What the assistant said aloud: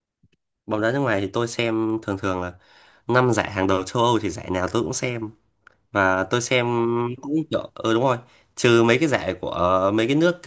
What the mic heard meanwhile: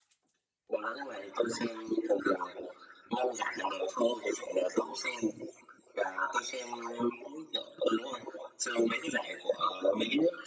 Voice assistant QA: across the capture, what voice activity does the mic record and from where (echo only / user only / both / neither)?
echo only